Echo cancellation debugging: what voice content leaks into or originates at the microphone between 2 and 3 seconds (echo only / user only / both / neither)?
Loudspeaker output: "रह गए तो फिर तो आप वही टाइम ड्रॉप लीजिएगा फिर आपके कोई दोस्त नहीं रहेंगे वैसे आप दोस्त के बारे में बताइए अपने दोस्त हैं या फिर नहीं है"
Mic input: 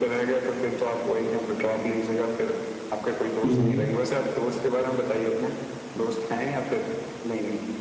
echo only